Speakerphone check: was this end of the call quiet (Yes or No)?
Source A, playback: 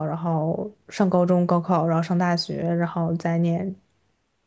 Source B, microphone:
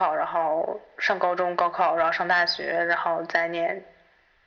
Yes